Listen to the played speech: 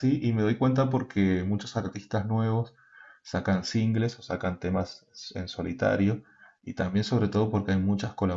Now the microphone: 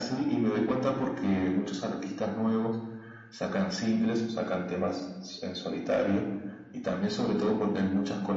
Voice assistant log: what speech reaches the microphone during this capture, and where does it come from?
echo only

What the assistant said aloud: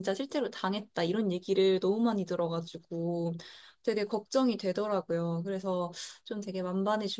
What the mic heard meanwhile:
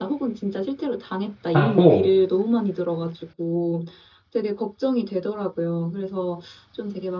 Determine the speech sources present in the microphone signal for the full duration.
both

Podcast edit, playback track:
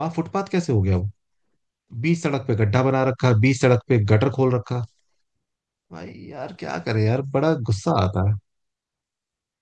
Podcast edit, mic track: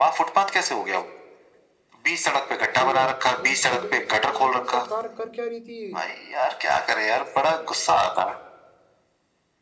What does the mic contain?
both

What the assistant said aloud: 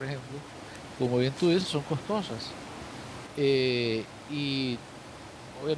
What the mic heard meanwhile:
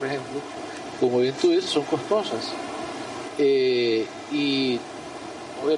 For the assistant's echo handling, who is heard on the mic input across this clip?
echo only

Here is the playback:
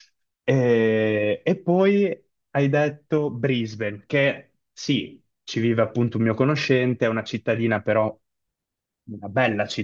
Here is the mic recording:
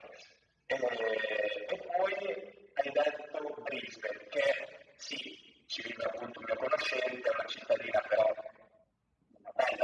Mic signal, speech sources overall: echo only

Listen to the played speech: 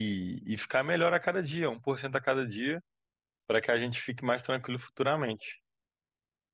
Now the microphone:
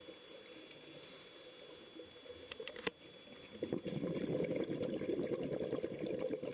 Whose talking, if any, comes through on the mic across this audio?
neither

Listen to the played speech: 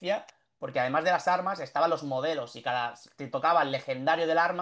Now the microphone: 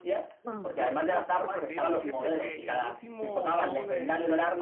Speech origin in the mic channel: both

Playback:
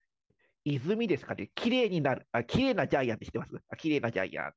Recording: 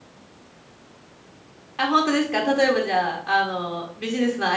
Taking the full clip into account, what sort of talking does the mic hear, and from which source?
user only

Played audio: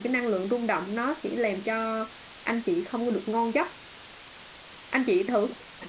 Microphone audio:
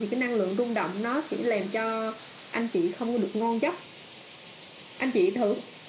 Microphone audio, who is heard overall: echo only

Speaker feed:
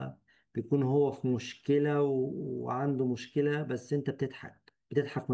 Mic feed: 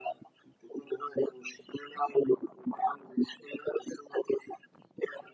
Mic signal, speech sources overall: echo only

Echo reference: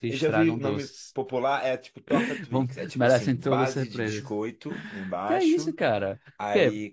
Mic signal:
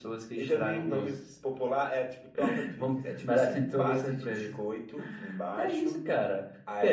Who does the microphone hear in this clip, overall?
echo only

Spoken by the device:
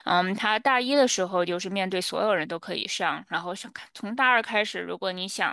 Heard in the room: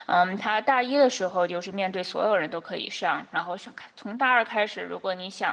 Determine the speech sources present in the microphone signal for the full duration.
echo only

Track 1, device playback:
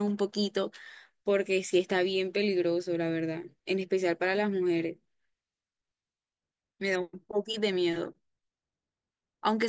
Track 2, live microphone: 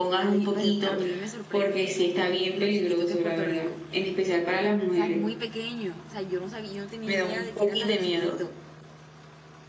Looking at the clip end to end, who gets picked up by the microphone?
both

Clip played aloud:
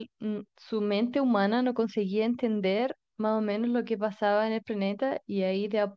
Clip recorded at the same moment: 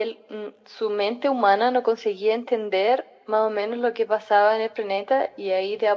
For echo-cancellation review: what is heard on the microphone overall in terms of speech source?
echo only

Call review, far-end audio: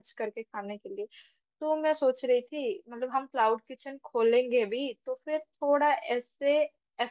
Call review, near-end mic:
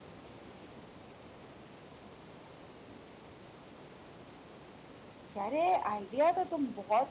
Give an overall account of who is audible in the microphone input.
user only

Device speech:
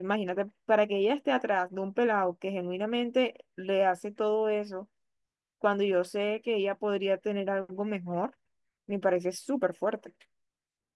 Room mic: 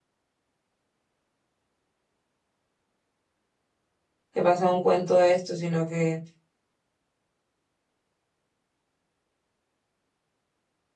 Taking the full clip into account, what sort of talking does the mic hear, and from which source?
user only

